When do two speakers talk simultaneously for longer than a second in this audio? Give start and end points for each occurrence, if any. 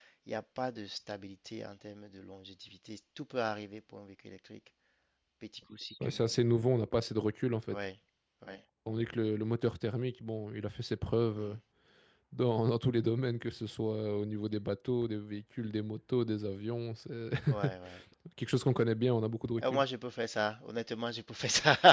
none

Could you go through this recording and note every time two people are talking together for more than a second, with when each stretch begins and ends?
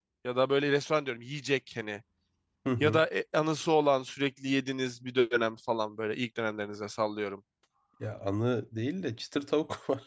none

